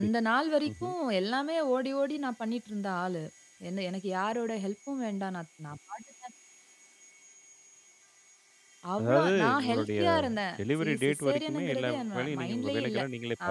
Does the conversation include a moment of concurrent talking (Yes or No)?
Yes